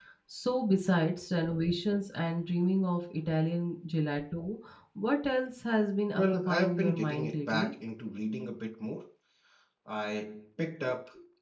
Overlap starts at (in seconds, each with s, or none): 6.1 s